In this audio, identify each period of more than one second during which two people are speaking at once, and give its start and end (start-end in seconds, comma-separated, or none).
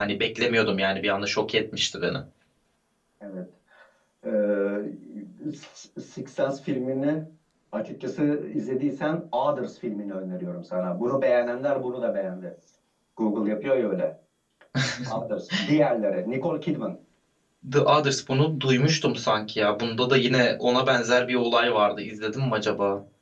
none